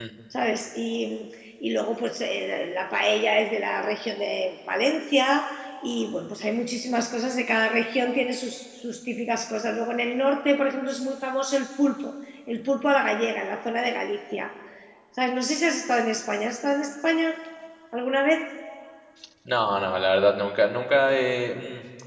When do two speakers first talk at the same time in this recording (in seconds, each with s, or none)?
none